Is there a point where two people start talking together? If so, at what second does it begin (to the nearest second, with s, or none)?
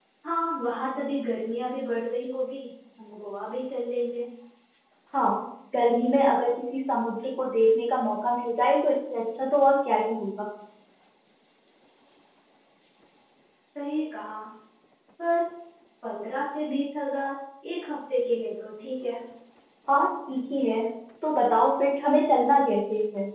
none